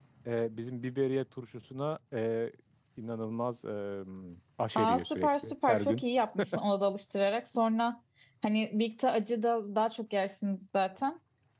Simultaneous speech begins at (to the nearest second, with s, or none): 5 s